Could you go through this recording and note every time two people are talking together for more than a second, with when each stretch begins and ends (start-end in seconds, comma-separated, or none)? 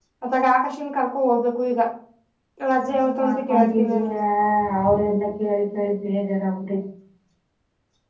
2.8-4.1